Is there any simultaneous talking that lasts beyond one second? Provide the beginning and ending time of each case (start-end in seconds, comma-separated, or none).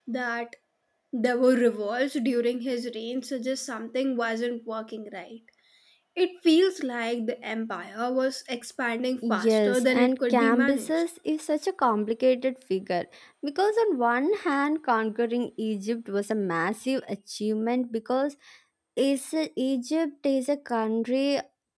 9.3-10.9